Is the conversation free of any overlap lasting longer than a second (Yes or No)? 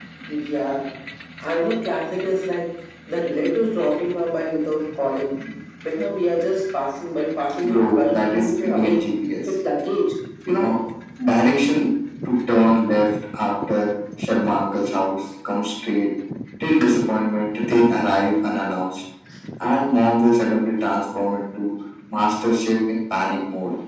No